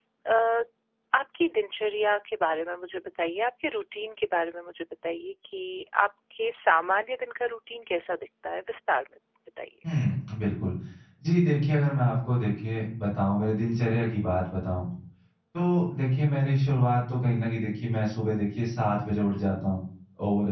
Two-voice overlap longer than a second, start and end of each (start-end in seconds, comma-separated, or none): none